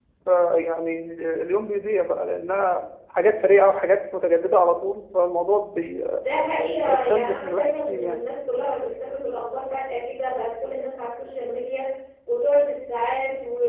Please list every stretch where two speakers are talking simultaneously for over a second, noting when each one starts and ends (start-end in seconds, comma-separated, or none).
6.9-8.2